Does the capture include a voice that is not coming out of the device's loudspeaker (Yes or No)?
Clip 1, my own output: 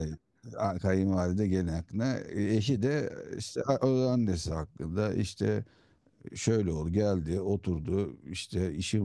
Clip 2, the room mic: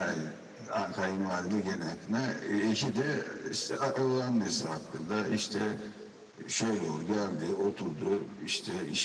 No